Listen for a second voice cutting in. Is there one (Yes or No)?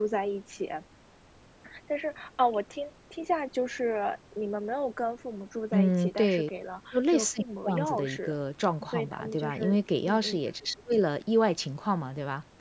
Yes